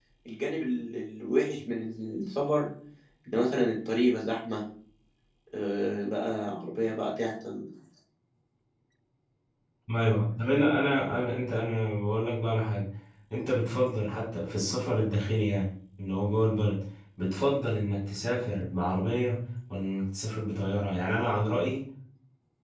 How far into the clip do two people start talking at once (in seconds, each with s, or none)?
none